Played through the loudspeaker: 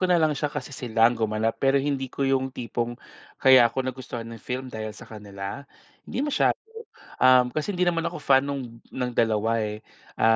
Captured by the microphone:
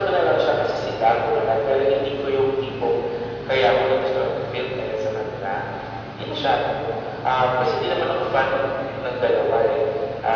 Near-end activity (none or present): none